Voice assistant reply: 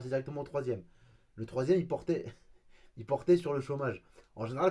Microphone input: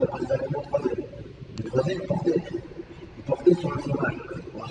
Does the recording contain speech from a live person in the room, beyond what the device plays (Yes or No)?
No